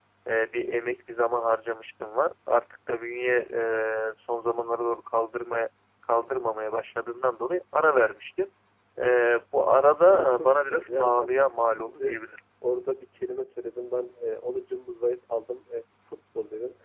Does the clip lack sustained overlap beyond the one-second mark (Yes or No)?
No